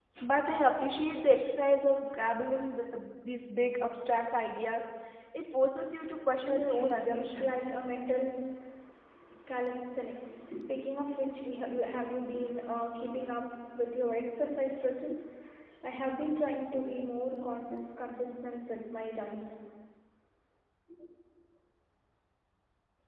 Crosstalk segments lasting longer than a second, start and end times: 6.4-7.7

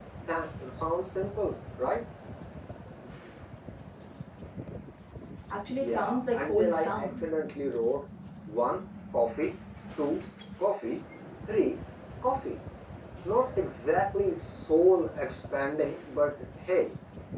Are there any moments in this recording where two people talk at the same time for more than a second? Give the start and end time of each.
5.8-7.2

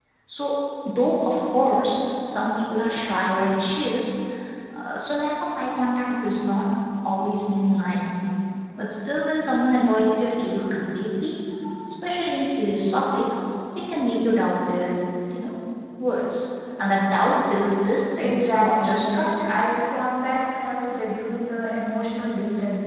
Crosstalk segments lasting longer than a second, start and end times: 18.2-19.6

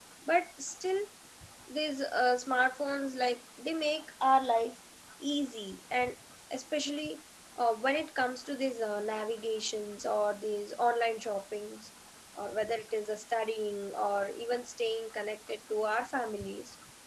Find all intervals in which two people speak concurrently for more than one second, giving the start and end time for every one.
none

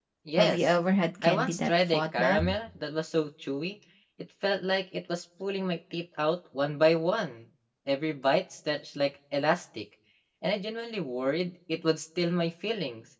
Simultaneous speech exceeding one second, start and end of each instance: 1.2-2.4

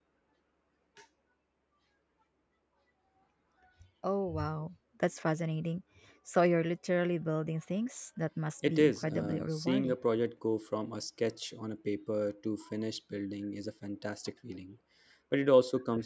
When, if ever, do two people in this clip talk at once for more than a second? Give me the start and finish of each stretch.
8.7-9.9

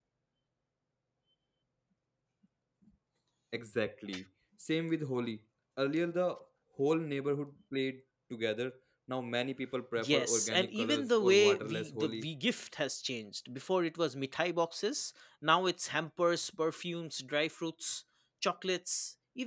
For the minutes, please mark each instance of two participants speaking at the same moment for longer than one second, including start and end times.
10.0-12.3

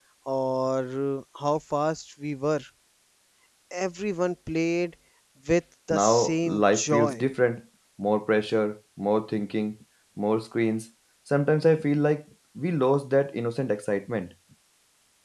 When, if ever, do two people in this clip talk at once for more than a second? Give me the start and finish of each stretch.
5.9-7.2

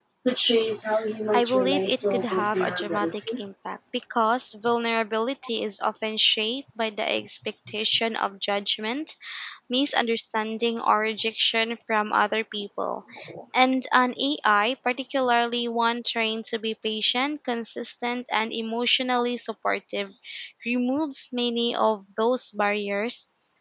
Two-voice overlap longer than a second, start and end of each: 1.3-3.4

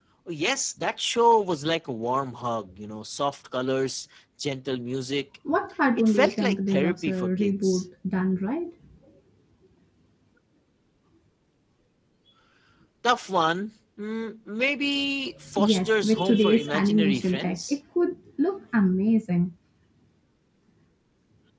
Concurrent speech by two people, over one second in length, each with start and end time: 6.0-7.8, 15.6-17.8

